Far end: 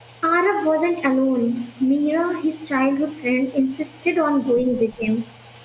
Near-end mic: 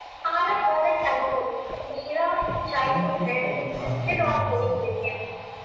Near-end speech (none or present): present